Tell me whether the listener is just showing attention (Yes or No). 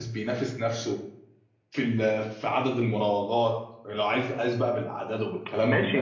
No